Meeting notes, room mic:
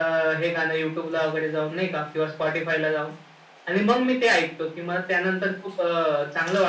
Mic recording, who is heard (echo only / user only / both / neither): echo only